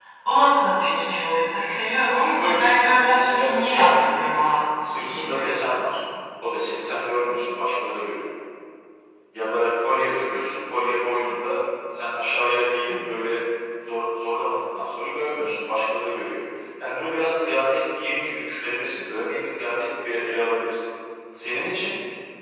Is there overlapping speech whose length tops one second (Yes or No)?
Yes